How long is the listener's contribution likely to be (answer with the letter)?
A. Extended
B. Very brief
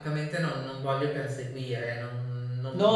A